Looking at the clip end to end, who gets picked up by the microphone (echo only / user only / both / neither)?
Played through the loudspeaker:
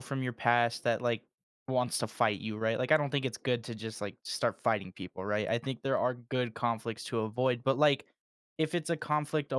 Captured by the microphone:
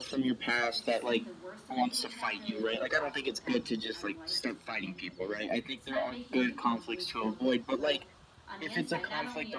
both